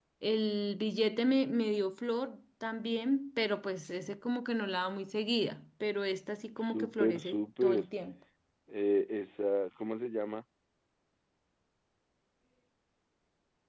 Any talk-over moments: Yes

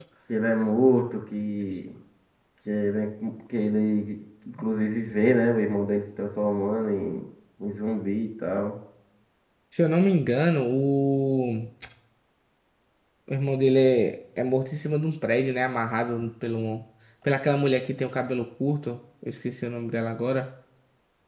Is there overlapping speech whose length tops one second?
No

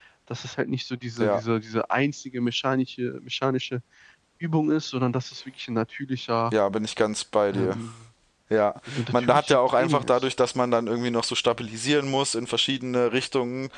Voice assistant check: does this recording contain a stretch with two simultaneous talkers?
Yes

